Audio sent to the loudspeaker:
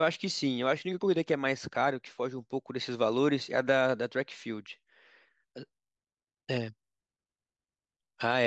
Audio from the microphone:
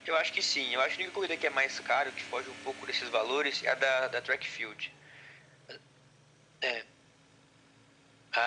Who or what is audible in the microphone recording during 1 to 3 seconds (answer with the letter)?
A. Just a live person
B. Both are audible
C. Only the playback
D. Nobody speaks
C